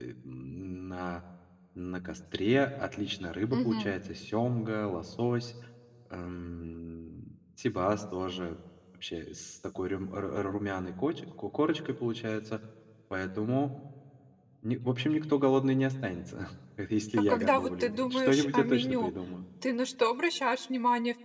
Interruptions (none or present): present